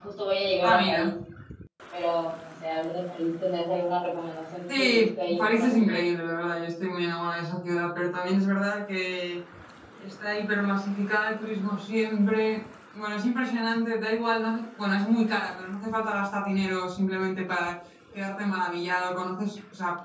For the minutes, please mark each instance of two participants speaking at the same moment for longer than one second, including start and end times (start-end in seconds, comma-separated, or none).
4.7-6.0